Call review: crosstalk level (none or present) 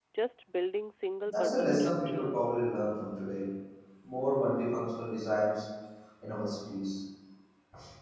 present